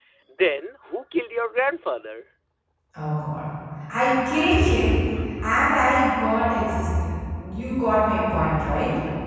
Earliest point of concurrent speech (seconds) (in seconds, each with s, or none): none